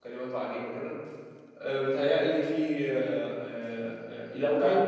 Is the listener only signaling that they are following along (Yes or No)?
Yes